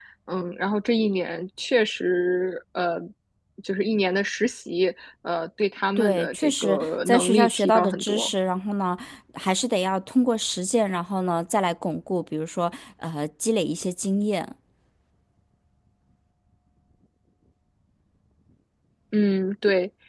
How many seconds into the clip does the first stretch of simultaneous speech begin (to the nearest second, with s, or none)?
6 s